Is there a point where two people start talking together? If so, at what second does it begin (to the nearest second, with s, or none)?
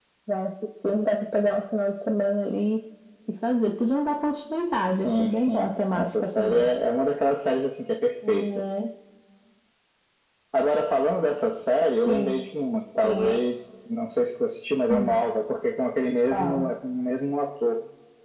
5 s